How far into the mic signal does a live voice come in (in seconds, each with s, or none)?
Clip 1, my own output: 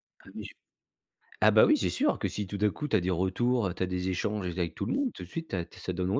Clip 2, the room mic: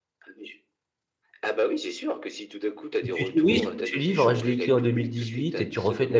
3.0 s